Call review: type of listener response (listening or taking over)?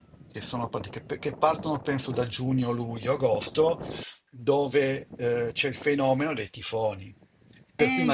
listening